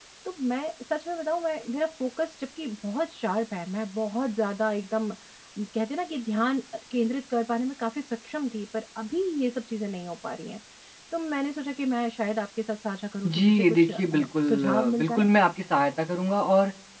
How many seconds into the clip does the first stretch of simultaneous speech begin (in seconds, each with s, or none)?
13.2 s